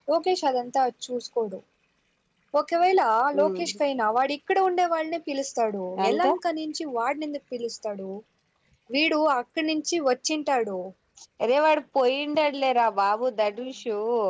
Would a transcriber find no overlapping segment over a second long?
Yes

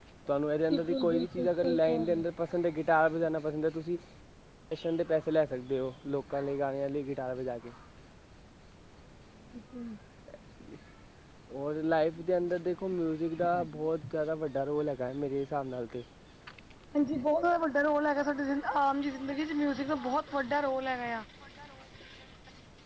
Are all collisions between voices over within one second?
No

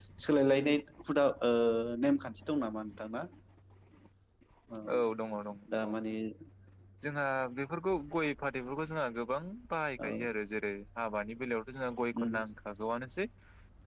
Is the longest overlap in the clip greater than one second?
No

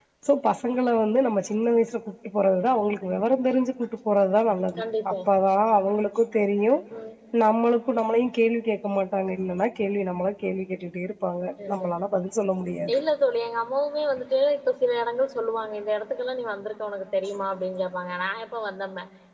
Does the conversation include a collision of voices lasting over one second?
No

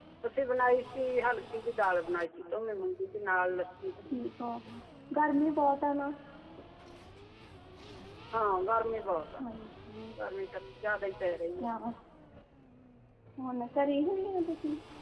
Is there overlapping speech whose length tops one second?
No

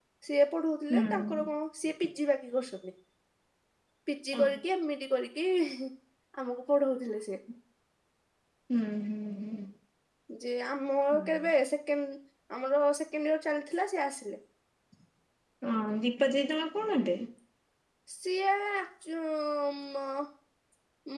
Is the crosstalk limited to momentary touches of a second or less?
Yes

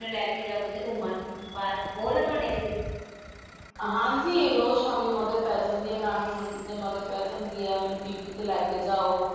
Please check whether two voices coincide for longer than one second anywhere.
No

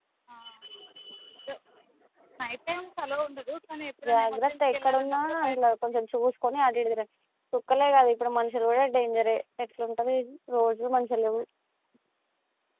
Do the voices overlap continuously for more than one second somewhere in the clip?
Yes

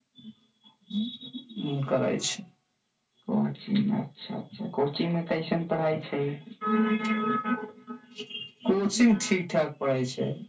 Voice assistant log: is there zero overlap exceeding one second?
Yes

